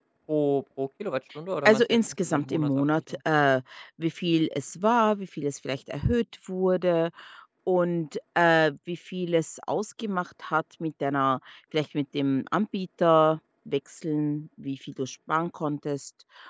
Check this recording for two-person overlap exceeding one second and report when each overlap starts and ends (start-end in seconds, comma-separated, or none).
1.6-3.2